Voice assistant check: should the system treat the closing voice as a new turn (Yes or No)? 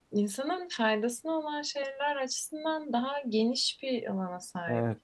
Yes